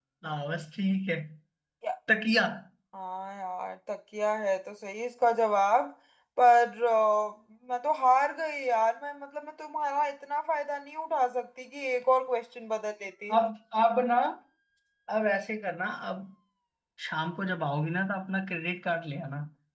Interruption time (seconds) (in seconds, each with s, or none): none